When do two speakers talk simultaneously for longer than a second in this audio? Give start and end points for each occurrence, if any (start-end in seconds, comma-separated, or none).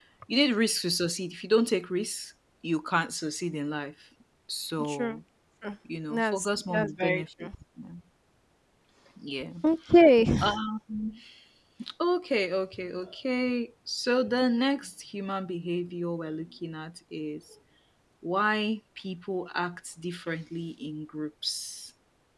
6.1-7.5